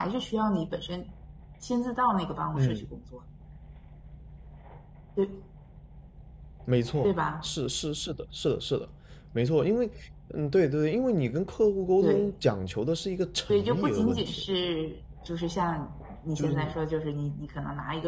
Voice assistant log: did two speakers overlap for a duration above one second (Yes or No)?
Yes